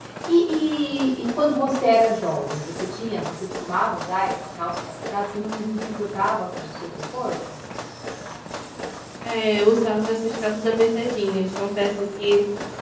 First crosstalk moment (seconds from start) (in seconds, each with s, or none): none